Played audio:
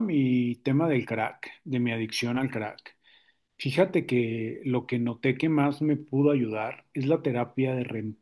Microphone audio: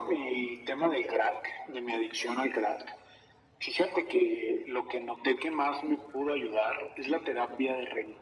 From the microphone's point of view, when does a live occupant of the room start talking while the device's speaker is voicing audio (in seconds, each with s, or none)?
none